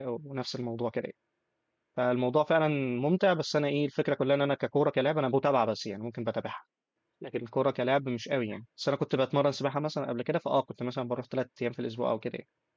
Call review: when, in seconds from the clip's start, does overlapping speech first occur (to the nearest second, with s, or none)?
none